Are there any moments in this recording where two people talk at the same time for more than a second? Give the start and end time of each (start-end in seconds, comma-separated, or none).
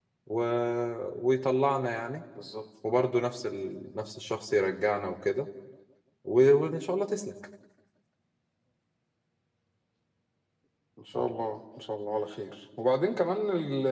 none